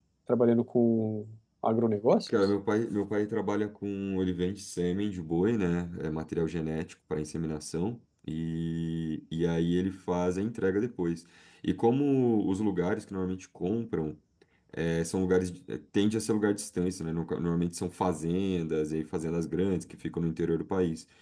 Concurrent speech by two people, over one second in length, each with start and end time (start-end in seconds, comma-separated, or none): none